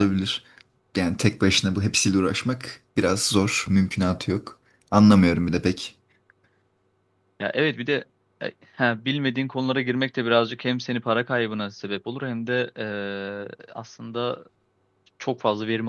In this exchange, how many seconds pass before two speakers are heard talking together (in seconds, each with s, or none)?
none